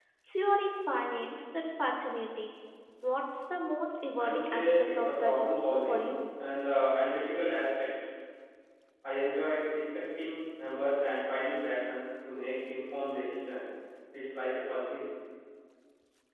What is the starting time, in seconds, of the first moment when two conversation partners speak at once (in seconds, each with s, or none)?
4.2 s